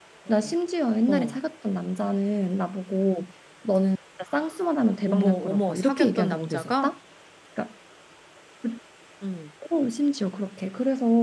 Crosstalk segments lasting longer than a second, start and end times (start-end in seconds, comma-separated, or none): 5.1-6.9